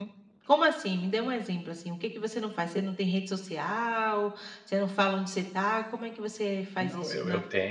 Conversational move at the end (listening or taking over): taking over